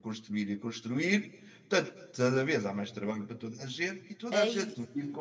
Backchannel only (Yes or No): Yes